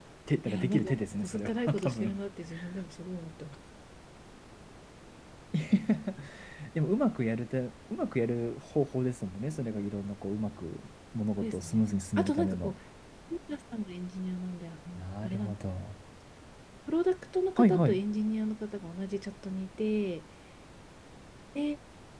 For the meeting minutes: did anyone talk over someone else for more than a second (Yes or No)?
Yes